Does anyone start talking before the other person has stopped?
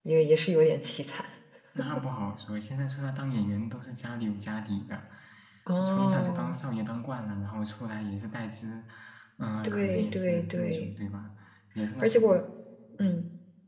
Yes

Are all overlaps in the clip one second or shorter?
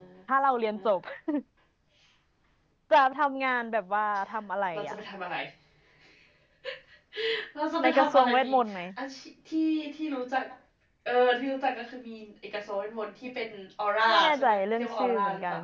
No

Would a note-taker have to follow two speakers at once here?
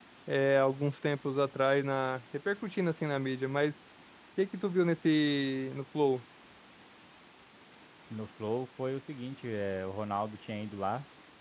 No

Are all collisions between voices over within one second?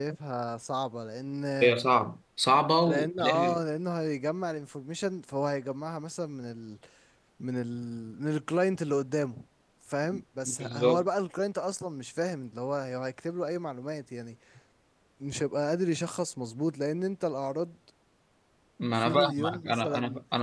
No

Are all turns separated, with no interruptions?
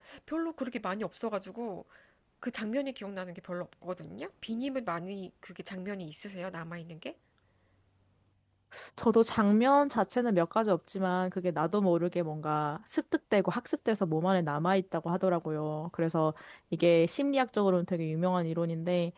Yes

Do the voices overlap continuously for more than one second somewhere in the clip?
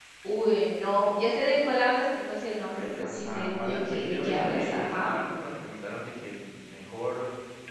Yes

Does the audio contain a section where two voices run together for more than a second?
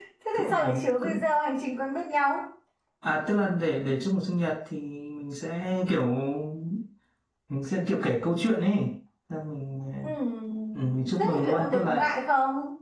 Yes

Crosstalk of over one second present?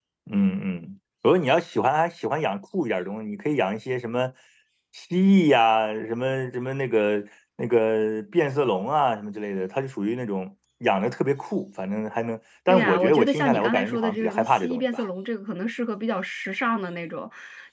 Yes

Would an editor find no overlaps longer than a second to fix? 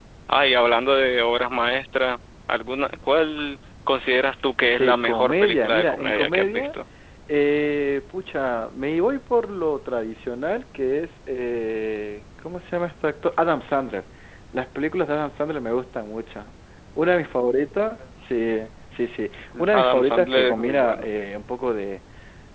No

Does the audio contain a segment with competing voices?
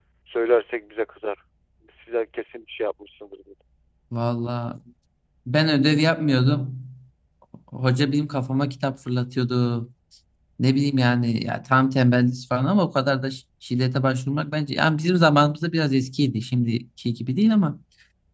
No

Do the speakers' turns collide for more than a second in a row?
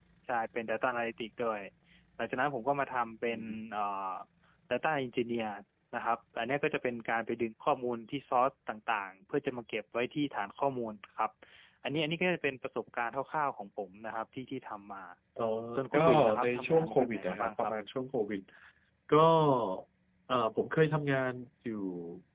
Yes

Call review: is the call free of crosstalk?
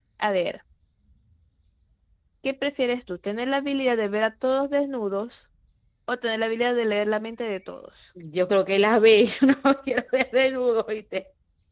Yes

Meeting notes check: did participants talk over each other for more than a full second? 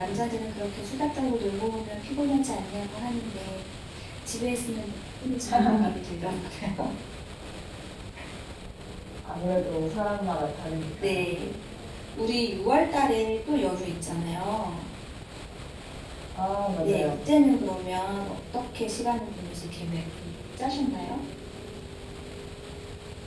No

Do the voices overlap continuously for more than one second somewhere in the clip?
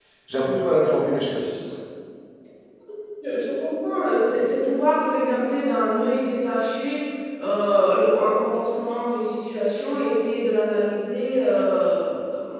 No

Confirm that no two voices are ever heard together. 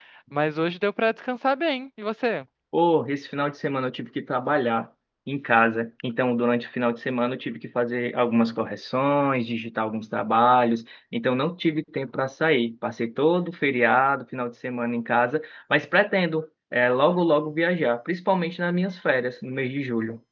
Yes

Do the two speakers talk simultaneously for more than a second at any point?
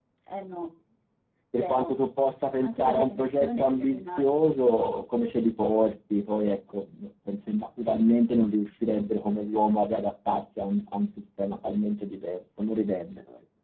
Yes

